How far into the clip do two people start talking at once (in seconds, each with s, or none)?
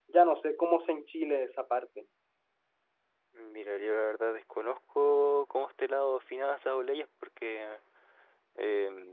none